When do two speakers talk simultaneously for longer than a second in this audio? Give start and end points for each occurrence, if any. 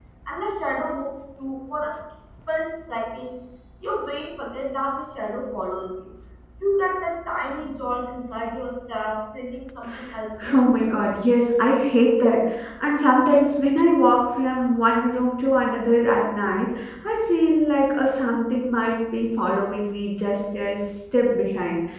none

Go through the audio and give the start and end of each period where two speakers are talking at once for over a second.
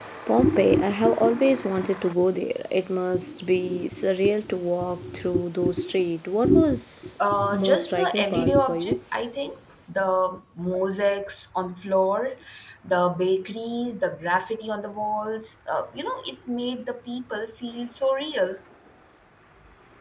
7.3-9.0

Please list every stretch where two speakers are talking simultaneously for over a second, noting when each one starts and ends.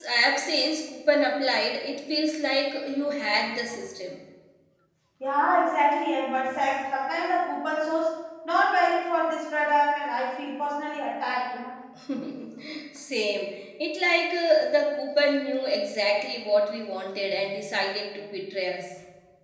none

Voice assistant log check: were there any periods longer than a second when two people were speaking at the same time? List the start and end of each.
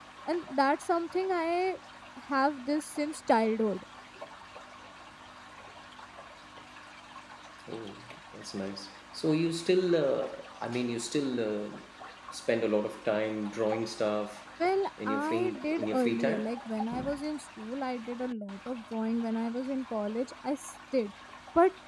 15.1-16.5

